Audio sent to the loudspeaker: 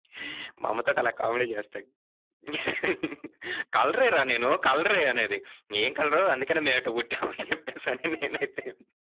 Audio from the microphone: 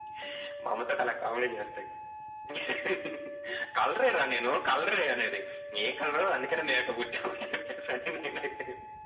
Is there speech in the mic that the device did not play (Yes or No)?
No